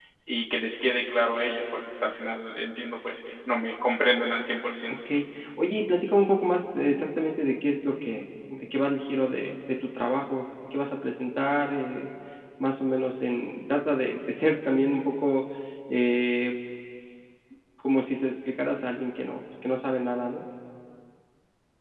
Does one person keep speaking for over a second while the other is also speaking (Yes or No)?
No